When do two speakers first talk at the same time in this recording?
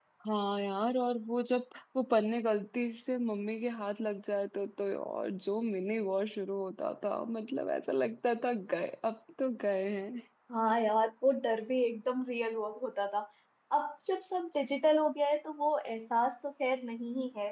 none

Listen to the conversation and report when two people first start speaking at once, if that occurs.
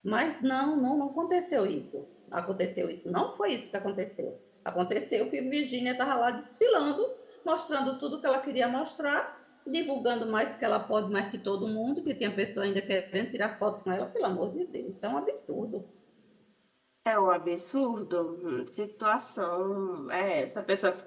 none

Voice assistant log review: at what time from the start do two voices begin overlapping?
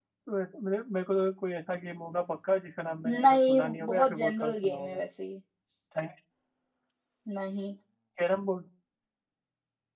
3.0 s

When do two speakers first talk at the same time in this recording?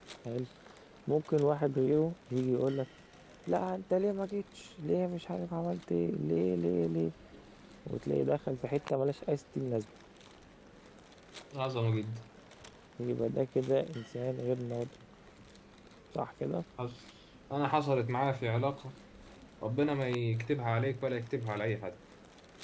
none

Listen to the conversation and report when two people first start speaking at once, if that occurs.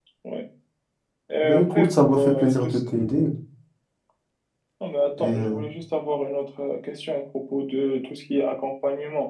1.4 s

